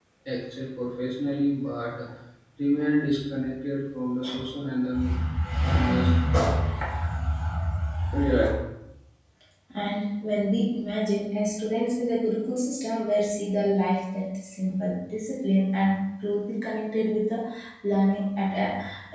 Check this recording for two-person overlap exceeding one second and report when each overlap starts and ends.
none

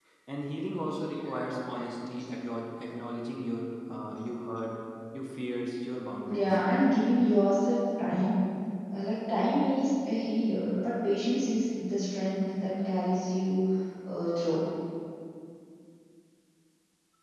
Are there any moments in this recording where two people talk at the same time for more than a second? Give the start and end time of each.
none

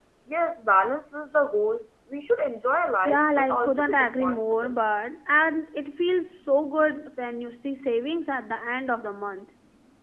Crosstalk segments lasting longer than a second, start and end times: 3.0-4.7

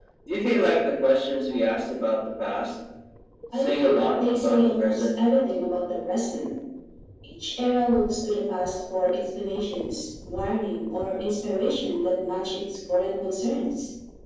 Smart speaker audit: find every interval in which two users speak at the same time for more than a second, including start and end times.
3.6-5.0

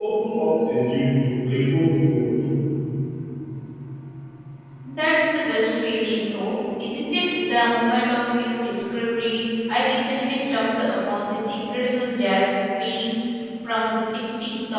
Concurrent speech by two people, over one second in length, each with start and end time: none

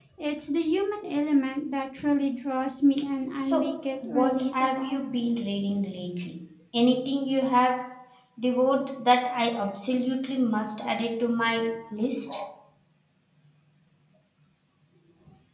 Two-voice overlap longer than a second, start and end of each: 3.4-5.0

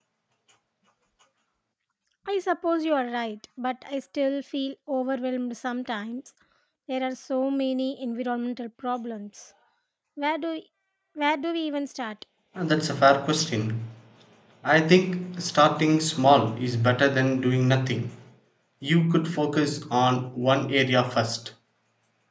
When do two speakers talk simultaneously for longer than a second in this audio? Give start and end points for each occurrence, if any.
none

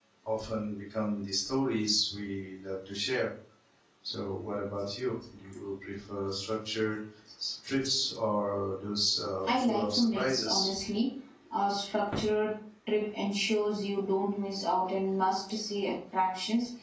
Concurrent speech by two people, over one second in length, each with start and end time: 9.5-10.7

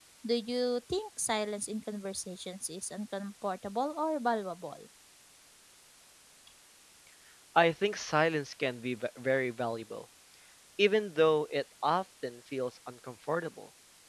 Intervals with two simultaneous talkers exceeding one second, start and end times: none

